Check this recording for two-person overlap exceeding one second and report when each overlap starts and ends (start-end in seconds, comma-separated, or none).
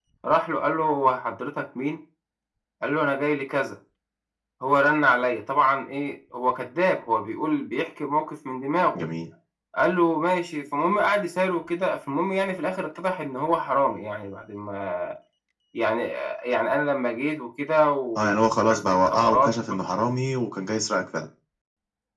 18.2-19.8